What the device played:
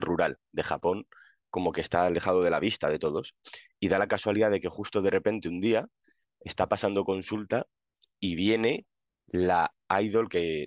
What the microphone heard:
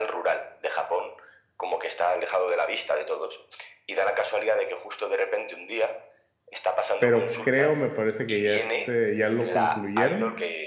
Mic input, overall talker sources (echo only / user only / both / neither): both